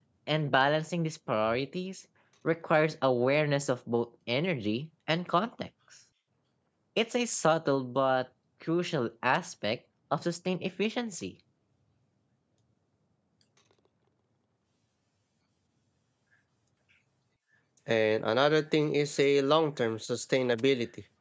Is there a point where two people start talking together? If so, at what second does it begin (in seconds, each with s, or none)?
none